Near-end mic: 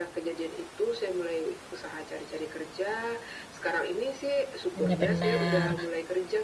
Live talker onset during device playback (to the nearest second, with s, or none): 5 s